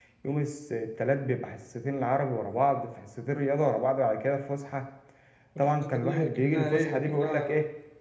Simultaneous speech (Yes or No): Yes